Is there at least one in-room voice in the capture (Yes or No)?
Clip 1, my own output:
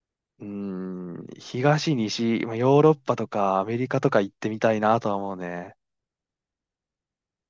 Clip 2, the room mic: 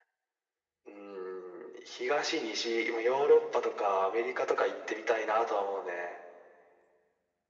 No